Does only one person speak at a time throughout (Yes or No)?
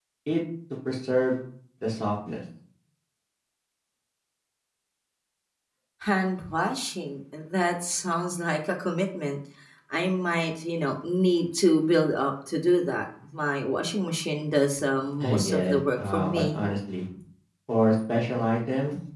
No